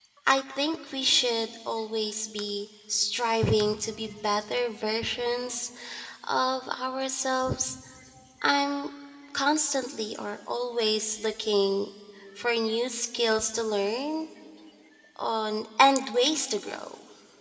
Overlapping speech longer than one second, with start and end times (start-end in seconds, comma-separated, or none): none